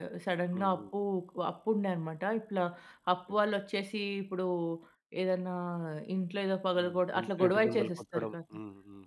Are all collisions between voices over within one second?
No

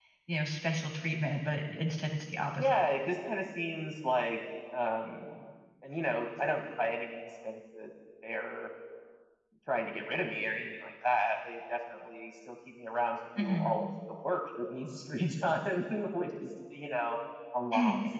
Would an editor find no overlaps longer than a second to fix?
Yes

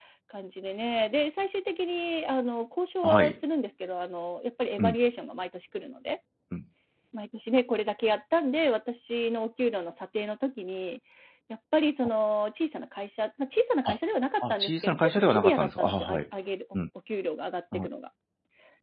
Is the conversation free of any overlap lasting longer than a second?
No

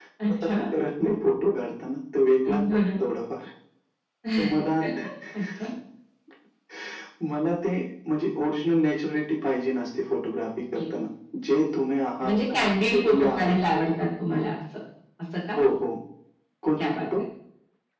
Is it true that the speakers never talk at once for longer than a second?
No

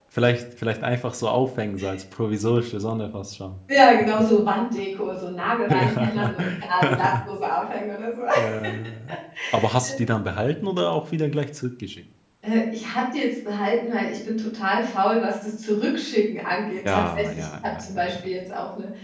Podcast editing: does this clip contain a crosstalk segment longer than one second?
Yes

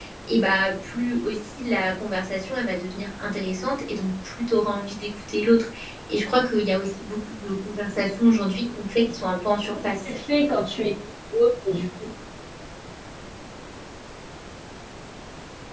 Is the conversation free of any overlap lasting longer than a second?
Yes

